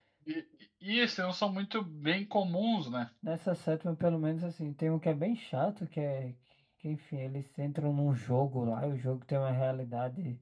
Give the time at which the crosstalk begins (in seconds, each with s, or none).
none